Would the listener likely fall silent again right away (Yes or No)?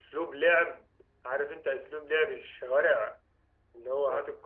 Yes